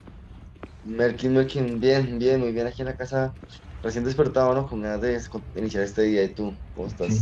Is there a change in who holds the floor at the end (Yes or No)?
Yes